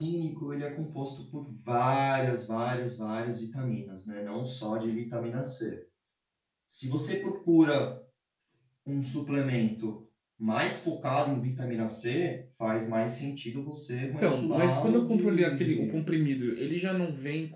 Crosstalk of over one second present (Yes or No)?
Yes